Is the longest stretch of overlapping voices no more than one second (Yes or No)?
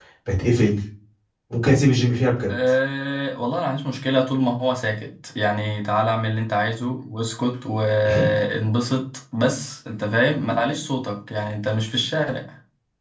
Yes